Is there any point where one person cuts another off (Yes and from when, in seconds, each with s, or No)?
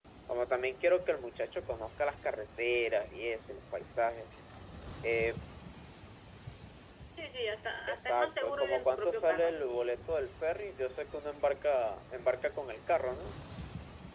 Yes, from 7.9 s